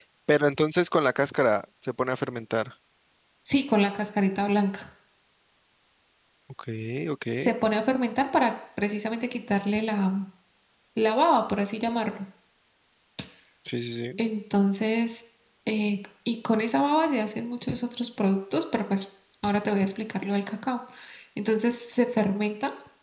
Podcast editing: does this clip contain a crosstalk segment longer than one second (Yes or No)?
No